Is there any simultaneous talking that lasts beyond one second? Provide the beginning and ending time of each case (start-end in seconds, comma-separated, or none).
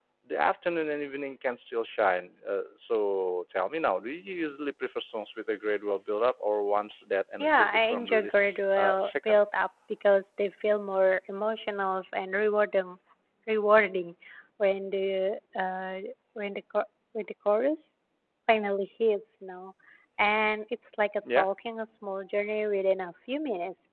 7.4-9.4